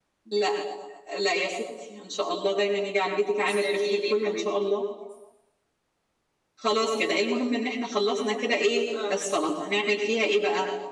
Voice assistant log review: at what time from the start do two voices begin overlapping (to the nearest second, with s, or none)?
3 s